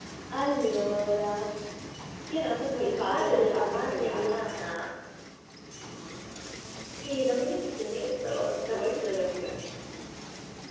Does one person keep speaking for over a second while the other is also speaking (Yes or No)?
Yes